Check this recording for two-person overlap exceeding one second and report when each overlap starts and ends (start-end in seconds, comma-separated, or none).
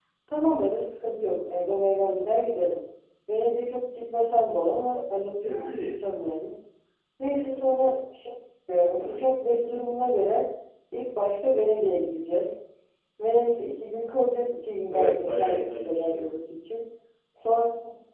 14.9-16.3